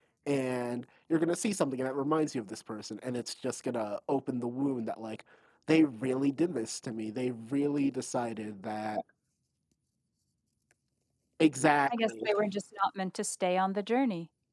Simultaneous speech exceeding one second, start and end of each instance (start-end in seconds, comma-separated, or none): none